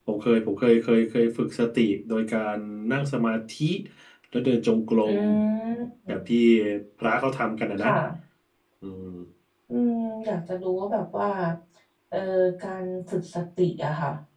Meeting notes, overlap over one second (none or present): none